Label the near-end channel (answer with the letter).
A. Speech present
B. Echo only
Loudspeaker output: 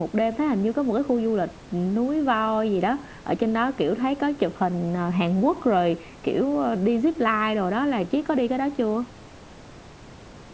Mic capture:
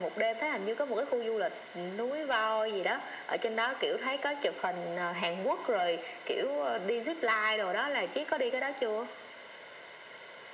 B